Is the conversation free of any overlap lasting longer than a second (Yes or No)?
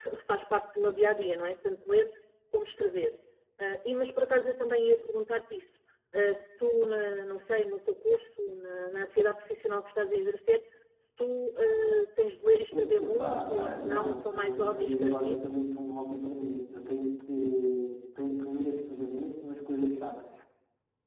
No